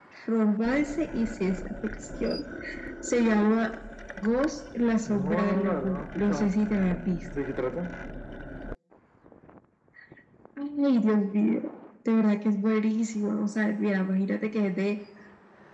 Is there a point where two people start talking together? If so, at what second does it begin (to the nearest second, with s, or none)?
5 s